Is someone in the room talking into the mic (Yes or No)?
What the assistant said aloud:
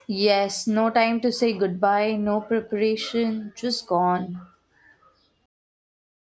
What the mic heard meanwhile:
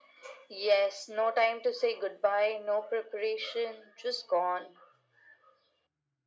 No